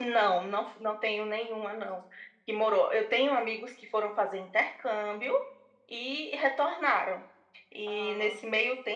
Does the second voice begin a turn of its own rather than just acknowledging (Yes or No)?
No